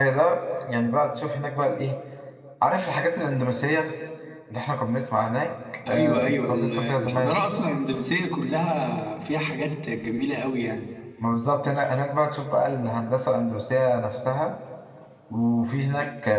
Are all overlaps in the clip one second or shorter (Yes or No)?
No